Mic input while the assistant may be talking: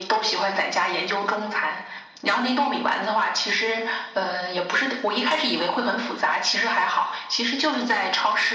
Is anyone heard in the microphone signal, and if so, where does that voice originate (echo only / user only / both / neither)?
echo only